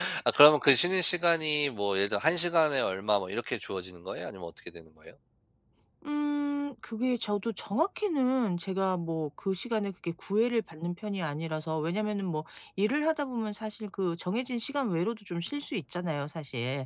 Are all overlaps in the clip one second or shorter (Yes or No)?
Yes